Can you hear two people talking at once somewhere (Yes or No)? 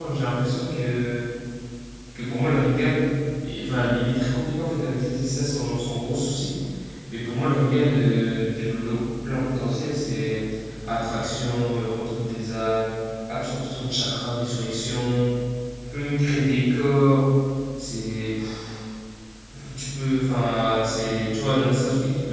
No